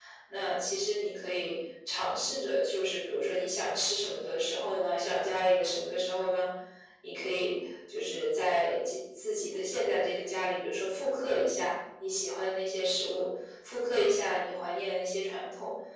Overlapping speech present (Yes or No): No